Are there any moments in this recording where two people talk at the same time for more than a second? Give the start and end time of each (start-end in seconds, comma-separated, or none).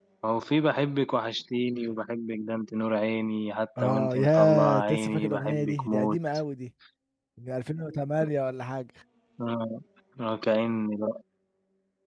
3.8-6.2